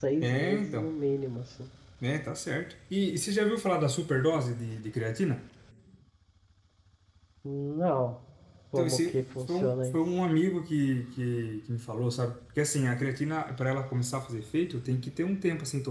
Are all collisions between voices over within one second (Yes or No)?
No